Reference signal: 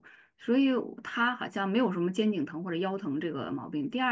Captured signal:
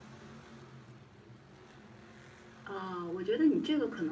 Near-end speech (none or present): present